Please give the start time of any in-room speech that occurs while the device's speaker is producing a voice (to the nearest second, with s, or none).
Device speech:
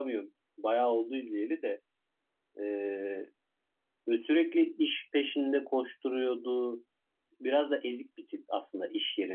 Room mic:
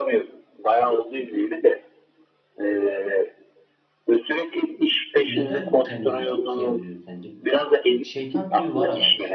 5 s